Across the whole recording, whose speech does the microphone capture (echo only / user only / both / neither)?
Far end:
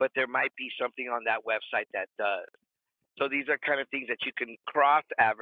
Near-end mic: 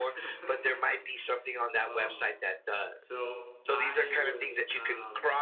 both